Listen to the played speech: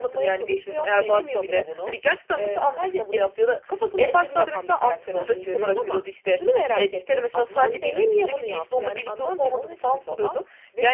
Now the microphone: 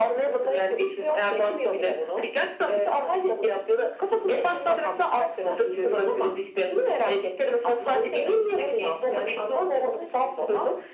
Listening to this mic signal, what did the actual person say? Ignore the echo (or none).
none